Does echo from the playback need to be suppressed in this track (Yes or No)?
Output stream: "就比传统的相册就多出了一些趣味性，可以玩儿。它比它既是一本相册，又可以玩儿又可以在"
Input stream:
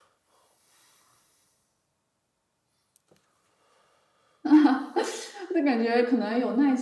No